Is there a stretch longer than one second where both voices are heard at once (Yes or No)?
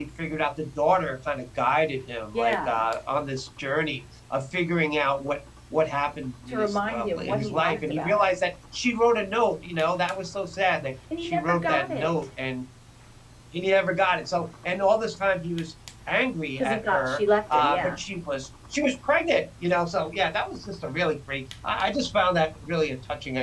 Yes